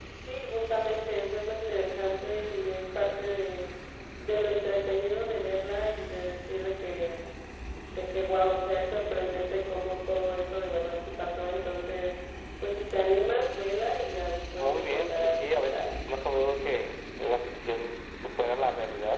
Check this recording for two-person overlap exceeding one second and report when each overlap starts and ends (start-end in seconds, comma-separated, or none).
14.6-15.9